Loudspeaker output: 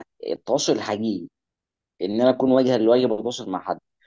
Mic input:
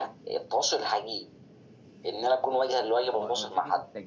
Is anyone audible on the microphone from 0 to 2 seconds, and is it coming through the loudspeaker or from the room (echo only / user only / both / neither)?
echo only